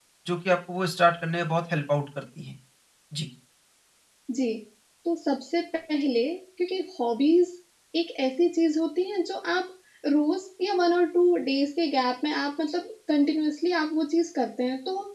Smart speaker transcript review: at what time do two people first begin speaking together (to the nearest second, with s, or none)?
none